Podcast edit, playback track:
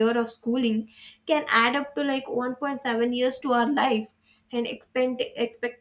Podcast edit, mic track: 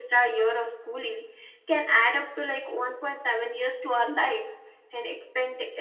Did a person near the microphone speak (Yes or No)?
No